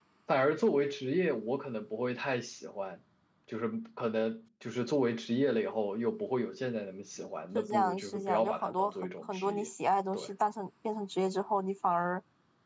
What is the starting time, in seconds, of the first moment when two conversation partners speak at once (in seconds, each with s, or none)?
7.6 s